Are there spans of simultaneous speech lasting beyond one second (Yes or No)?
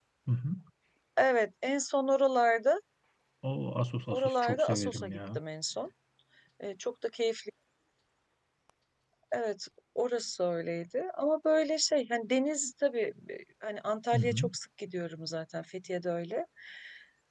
Yes